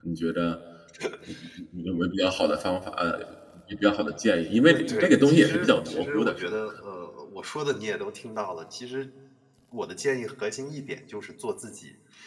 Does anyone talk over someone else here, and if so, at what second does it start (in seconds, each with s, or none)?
4.7 s